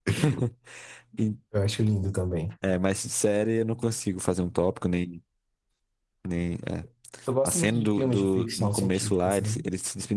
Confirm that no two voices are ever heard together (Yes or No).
No